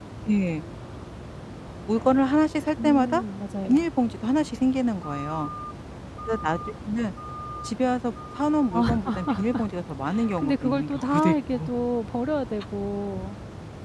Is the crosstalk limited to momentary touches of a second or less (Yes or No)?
No